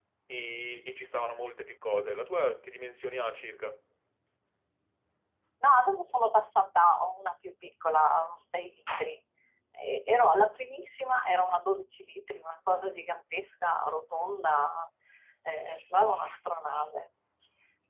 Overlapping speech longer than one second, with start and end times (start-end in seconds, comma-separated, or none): none